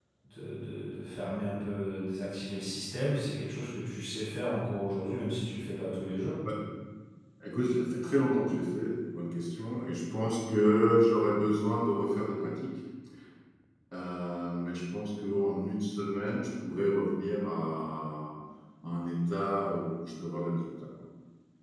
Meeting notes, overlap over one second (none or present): none